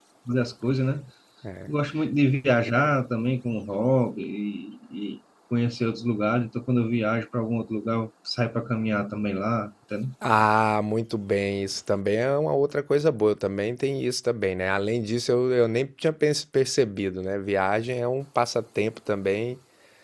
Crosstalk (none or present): none